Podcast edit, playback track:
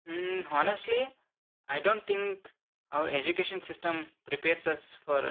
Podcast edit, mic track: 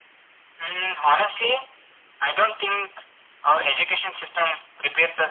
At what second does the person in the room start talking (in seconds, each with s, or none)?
none